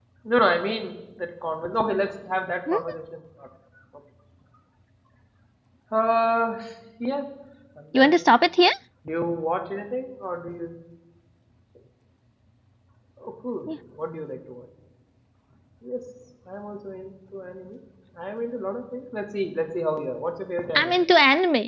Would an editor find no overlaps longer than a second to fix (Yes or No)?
Yes